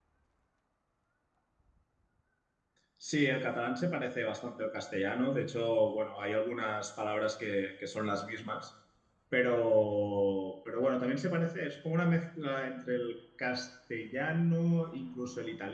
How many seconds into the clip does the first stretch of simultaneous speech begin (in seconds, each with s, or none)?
none